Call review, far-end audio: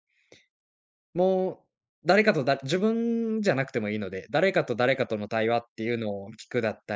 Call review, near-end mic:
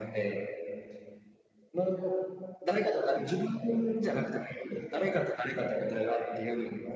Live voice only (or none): none